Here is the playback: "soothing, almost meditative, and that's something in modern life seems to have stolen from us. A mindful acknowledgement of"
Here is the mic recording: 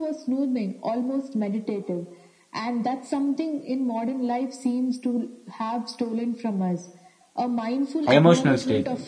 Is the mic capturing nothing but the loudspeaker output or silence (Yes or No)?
No